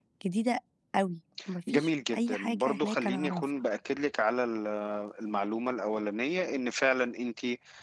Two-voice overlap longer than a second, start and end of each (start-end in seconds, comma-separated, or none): 1.7-3.4